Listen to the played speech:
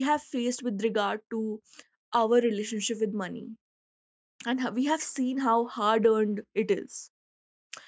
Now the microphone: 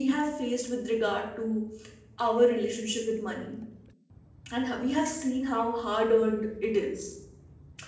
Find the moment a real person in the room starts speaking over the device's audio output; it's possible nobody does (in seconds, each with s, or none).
none